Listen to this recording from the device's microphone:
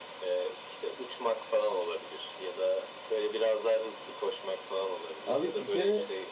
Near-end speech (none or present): present